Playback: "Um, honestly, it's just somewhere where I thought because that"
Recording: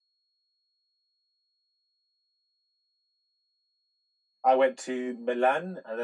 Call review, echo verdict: none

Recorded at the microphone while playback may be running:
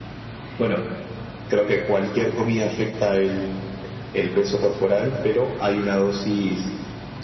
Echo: present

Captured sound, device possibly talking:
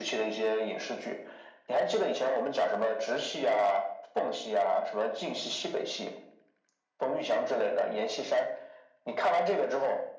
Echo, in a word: present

